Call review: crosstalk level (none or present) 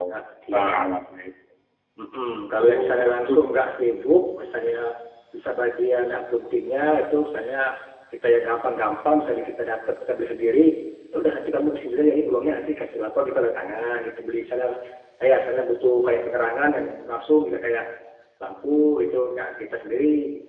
present